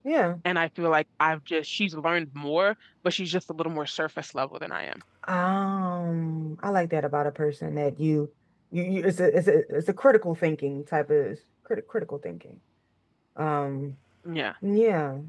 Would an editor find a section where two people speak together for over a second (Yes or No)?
No